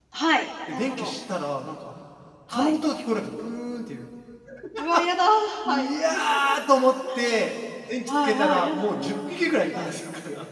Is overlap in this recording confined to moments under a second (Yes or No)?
No